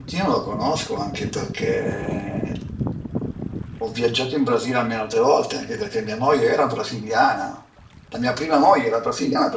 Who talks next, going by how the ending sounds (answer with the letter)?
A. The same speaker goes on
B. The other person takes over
A